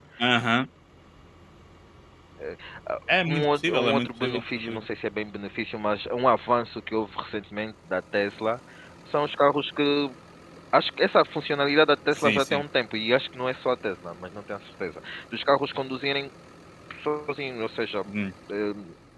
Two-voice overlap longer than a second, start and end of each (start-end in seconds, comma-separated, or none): 3.3-4.8